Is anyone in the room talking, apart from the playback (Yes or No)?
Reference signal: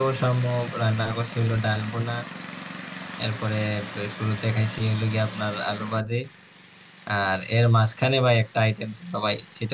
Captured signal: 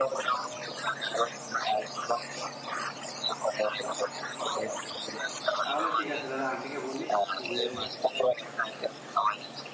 Yes